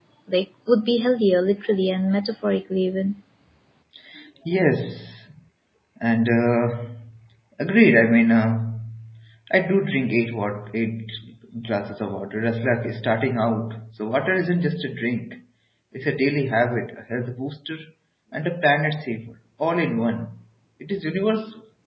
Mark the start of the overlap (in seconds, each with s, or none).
none